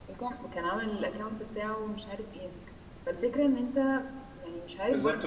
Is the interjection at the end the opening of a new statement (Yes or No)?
Yes